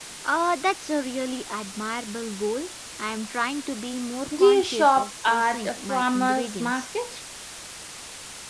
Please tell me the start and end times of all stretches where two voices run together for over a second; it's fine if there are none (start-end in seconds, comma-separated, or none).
4.4-6.8